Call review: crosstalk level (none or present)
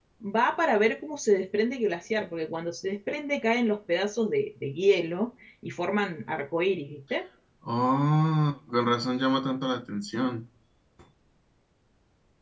none